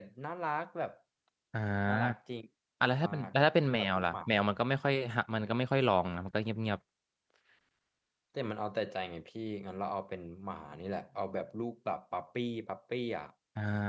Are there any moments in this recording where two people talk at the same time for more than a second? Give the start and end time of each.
none

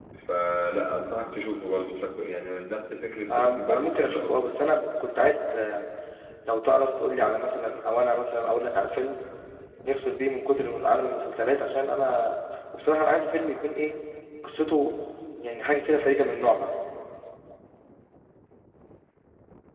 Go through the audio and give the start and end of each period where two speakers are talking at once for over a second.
3.3-4.5

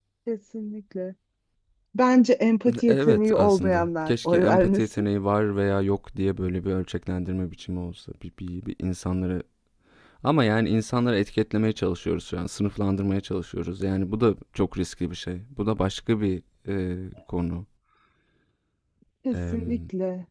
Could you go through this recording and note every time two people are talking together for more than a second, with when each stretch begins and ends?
2.9-4.8

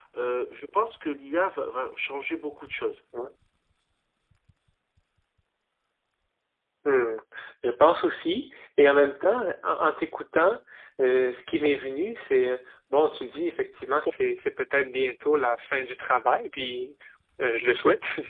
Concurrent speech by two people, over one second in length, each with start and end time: none

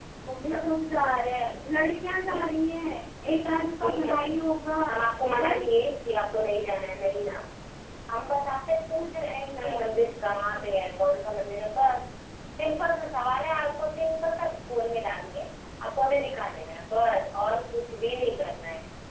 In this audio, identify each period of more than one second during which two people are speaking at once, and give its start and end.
none

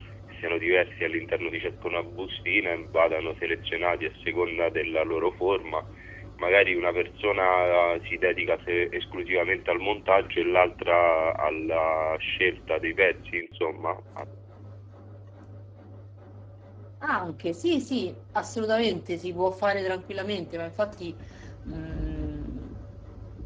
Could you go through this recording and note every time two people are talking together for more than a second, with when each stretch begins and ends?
none

